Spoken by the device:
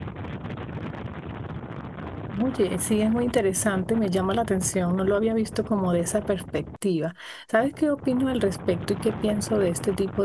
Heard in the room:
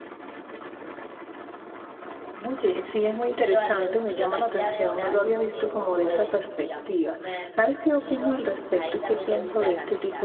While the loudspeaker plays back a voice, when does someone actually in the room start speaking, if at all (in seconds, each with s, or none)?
3.4 s